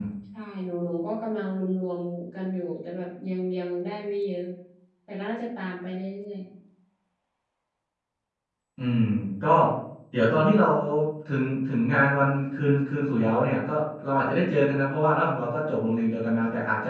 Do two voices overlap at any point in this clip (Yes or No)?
No